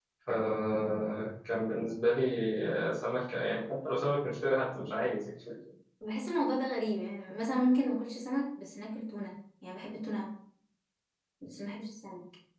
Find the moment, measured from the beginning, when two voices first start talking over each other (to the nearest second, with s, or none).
none